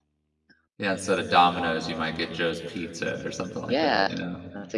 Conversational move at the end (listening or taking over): taking over